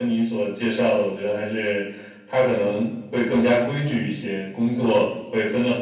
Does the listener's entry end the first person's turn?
No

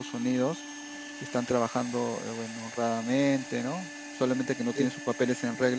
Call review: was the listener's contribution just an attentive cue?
Yes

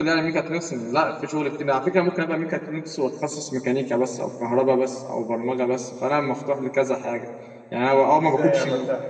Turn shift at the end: Yes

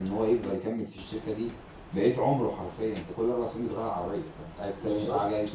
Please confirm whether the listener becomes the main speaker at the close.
No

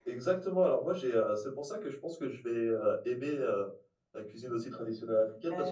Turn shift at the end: No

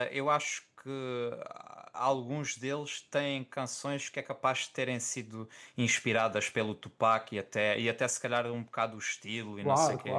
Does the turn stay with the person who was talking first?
No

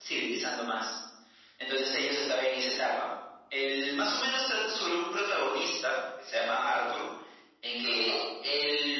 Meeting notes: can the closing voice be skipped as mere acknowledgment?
Yes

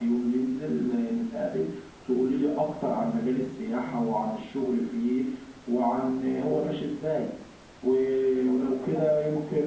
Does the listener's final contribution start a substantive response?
No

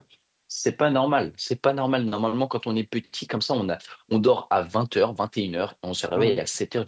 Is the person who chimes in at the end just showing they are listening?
Yes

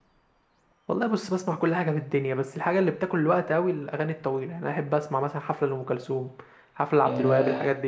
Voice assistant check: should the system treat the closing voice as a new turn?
Yes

